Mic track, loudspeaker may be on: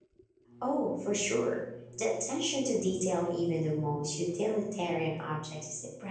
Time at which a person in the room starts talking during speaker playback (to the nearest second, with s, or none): 1 s